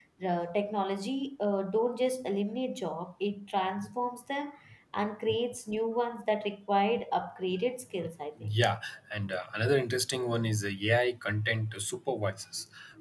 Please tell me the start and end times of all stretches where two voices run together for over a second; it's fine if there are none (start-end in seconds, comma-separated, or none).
none